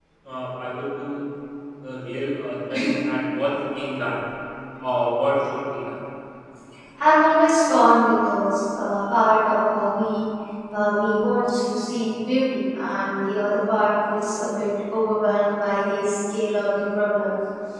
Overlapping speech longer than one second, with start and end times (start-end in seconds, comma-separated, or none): none